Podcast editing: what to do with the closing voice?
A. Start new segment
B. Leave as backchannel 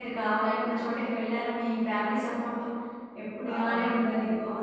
B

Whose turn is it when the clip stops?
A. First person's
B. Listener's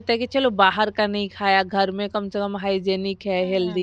B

